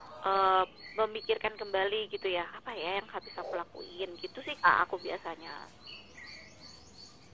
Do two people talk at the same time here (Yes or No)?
No